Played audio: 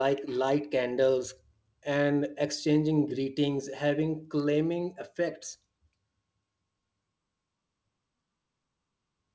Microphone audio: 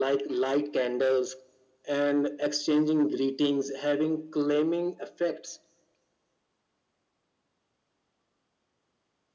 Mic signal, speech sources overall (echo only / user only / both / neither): echo only